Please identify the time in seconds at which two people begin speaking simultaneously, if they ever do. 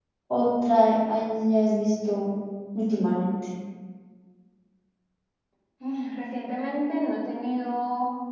none

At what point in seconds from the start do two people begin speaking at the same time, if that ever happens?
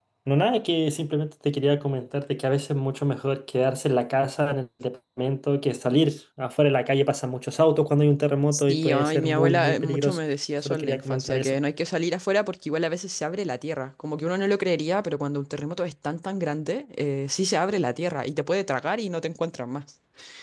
8.5 s

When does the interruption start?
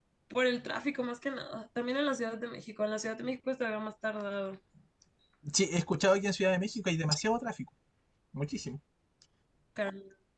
none

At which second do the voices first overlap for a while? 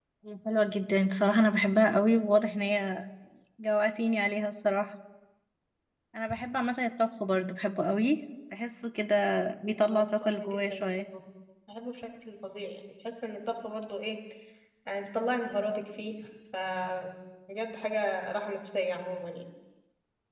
9.7 s

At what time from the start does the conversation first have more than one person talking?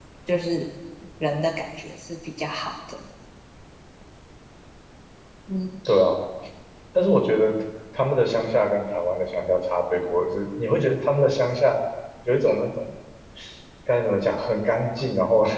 none

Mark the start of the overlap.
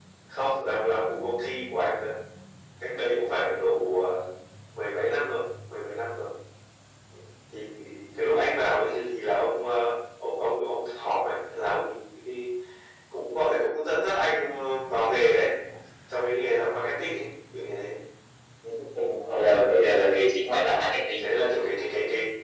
none

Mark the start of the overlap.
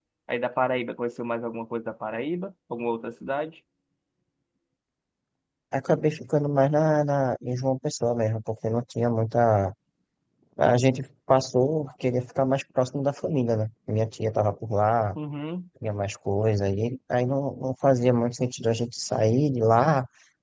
none

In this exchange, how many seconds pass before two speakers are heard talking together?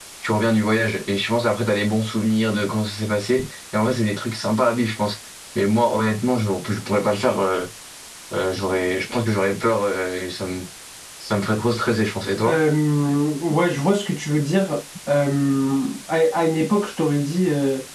none

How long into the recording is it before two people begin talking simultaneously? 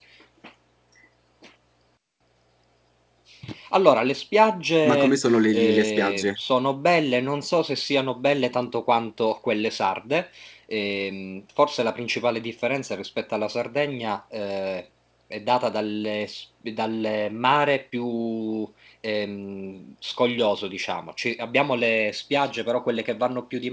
4.8 s

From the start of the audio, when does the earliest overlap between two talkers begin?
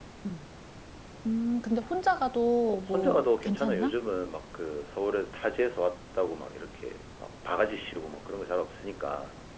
2.6 s

